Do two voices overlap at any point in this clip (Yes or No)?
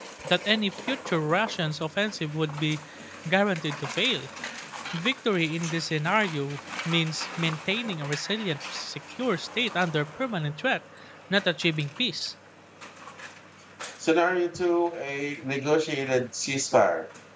No